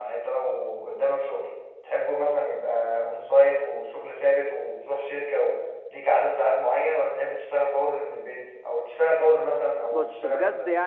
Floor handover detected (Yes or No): Yes